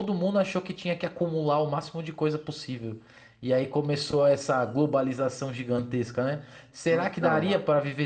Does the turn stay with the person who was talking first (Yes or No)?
Yes